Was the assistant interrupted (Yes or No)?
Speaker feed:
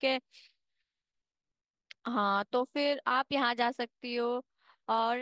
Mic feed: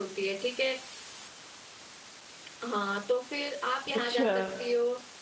Yes